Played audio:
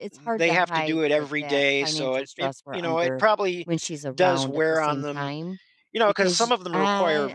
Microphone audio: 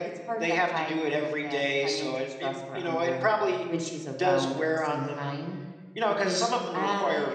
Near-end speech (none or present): none